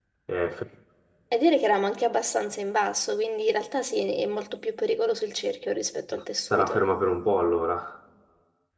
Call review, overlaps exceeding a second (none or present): none